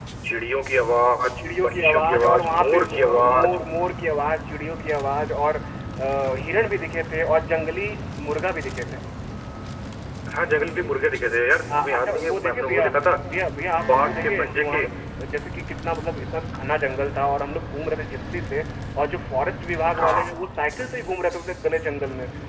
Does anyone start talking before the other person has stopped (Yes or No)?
Yes